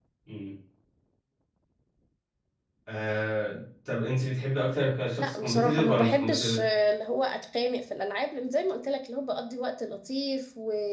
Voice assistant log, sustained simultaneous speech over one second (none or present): present